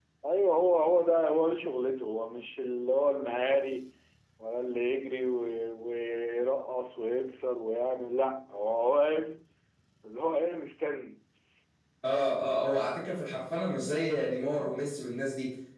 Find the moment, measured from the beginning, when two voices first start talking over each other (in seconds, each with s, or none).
none